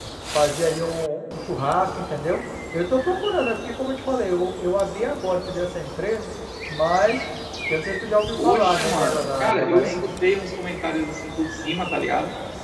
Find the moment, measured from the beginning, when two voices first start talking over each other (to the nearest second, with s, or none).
8 s